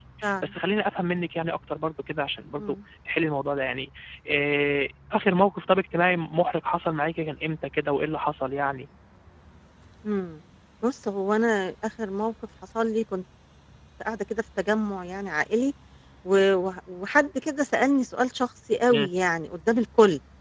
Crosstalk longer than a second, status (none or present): none